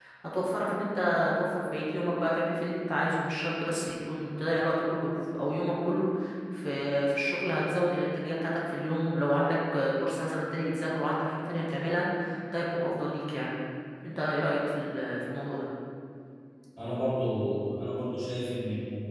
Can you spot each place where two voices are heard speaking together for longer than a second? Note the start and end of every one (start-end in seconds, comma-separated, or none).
none